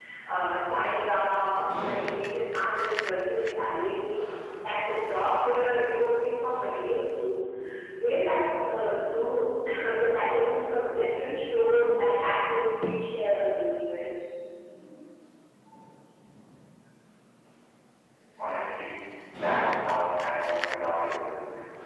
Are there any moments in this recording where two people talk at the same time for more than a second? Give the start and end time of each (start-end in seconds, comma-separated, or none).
none